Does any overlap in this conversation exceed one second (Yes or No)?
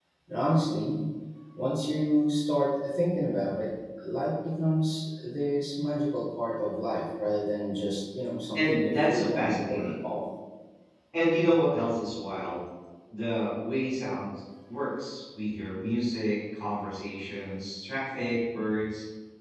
Yes